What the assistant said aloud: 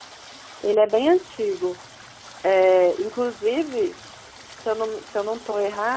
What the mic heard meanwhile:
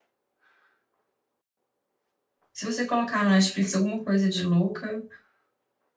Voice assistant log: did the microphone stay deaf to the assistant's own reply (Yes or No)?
Yes